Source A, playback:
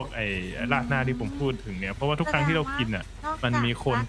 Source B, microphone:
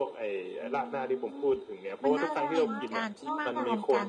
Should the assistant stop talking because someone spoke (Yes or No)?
Yes